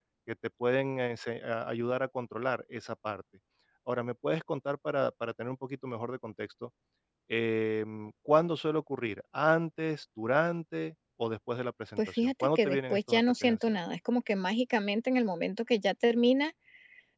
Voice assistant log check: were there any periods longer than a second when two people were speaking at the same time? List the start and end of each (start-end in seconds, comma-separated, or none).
12.0-13.8